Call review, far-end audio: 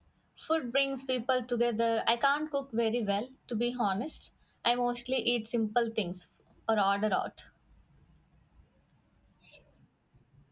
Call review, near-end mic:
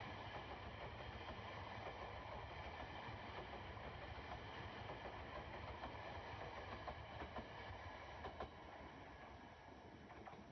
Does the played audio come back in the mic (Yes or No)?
No